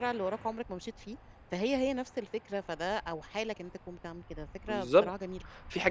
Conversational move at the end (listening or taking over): taking over